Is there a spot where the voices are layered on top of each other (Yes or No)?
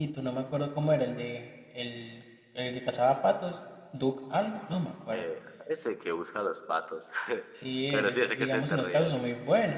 Yes